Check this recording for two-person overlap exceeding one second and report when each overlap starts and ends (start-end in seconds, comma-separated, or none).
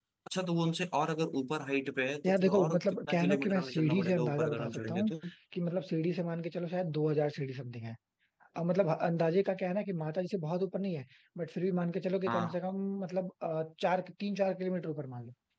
2.3-5.1